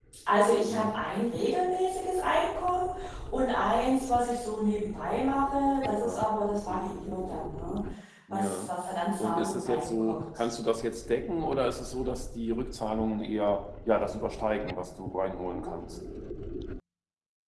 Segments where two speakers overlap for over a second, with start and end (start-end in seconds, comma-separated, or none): 9.2-10.4